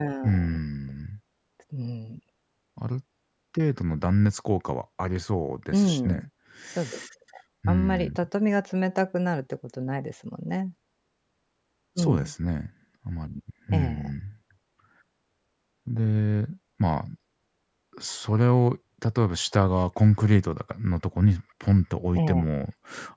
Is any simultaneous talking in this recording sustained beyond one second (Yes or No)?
No